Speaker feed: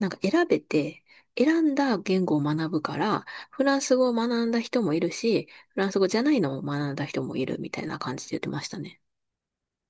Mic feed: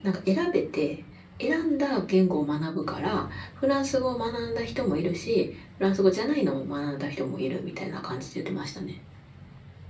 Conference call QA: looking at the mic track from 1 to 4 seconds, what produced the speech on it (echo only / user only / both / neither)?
echo only